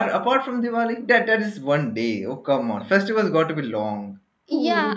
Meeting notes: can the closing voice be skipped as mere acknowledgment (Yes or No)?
No